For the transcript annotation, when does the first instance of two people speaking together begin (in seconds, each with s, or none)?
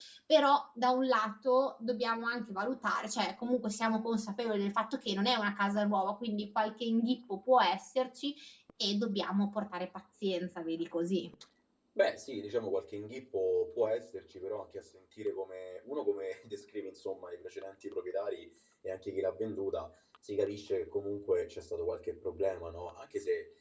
none